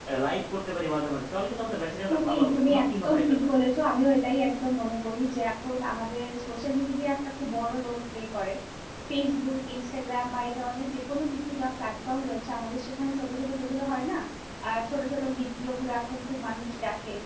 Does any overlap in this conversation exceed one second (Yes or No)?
Yes